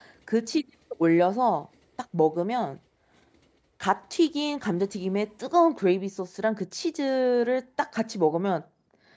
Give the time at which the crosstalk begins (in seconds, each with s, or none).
none